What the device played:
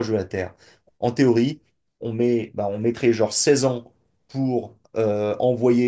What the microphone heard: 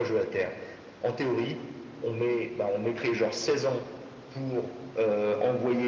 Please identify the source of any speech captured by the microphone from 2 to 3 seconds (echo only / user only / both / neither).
echo only